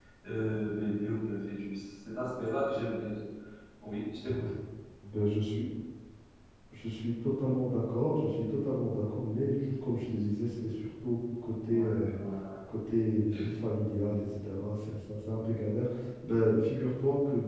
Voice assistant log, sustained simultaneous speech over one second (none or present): none